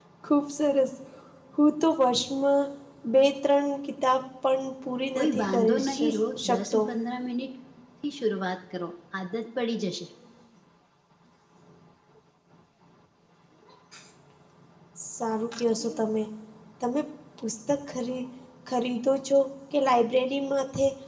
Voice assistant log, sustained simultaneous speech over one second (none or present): present